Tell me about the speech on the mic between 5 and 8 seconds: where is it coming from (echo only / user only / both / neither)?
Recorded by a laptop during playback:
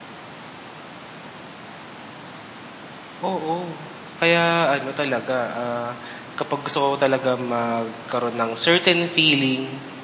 user only